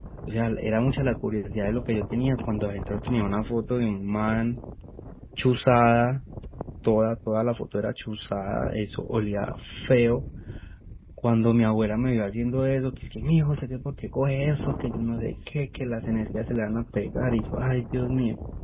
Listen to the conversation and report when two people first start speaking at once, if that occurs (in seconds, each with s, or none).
none